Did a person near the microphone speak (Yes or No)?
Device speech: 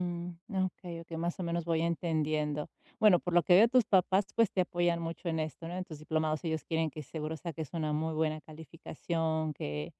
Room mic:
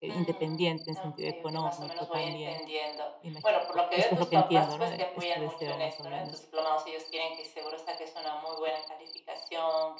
Yes